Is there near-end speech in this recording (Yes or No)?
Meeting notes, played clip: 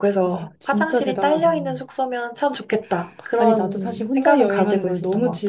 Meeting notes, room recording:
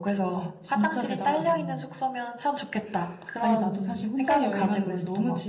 No